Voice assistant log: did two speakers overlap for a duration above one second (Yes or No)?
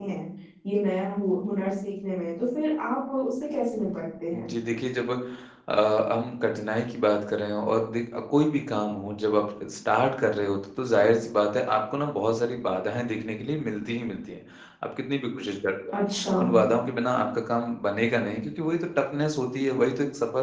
No